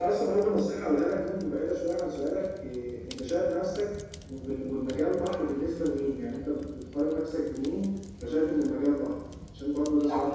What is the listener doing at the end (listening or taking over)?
taking over